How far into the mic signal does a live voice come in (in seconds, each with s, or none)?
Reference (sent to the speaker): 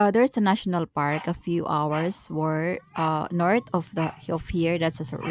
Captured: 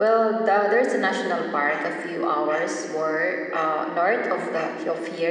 none